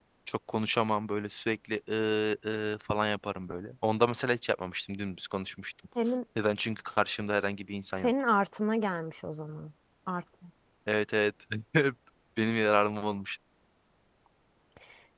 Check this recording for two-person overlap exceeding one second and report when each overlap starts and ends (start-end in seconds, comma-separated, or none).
none